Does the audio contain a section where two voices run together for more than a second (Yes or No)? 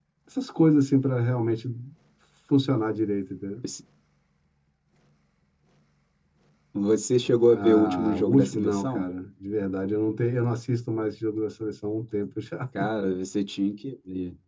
Yes